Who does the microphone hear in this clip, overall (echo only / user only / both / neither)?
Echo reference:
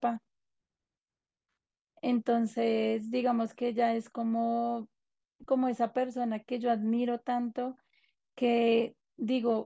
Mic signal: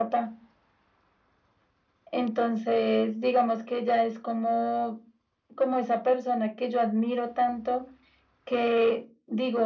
echo only